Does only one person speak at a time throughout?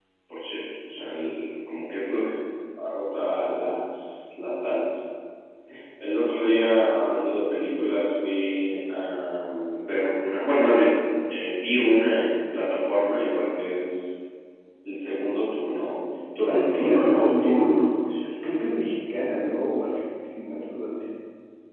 No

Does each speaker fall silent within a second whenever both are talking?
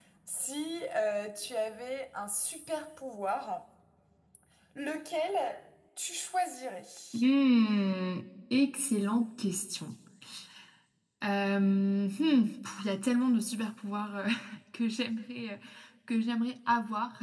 Yes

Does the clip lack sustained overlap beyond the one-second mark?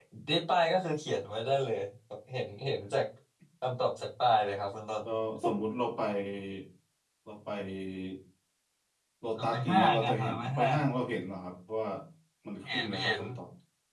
No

